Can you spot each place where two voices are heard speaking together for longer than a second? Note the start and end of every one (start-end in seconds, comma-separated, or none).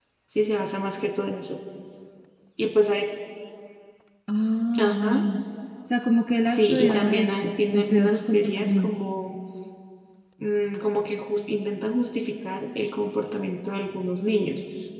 6.4-8.9